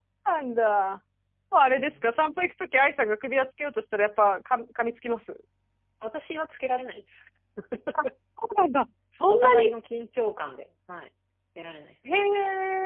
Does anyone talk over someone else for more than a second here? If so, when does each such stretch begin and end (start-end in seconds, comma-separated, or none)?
none